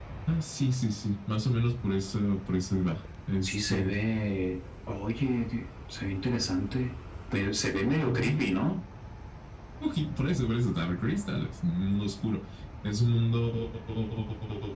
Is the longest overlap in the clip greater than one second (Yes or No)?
No